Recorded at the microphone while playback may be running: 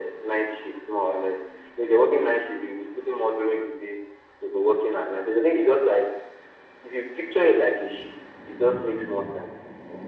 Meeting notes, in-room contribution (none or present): none